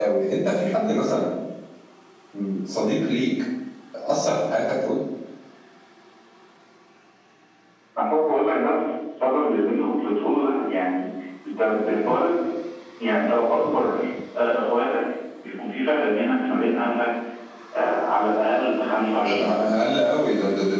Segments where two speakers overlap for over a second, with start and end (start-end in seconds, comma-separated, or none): none